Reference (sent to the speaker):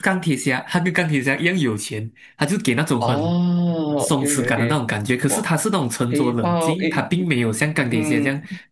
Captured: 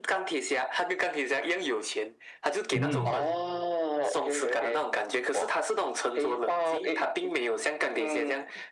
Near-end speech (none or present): present